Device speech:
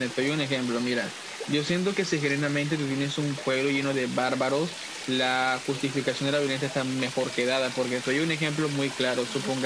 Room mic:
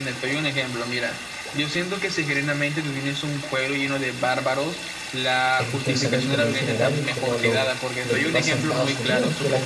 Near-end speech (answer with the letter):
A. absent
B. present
B